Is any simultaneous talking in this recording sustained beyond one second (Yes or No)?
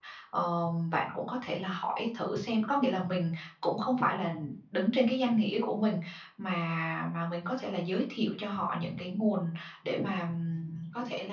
No